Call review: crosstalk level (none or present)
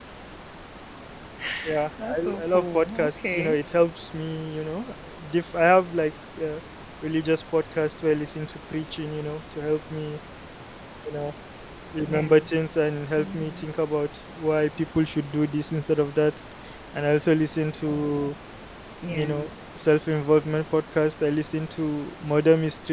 present